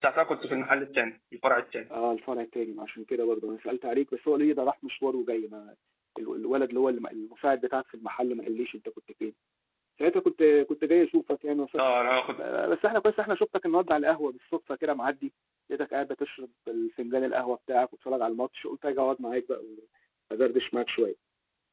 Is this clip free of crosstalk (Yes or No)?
Yes